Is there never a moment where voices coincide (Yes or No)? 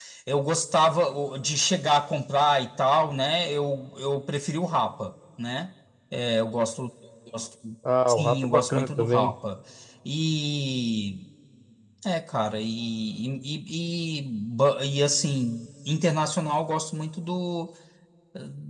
No